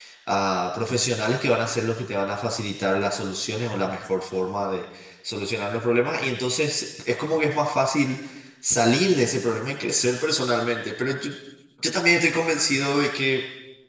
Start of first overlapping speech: none

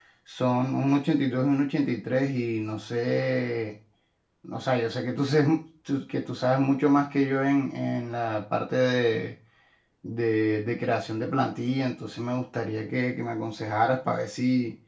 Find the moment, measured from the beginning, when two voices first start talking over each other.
none

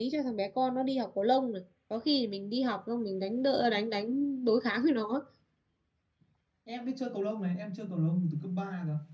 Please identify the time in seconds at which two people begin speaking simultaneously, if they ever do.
none

